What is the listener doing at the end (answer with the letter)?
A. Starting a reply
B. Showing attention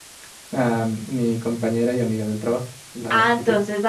A